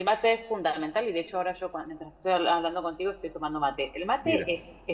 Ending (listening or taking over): listening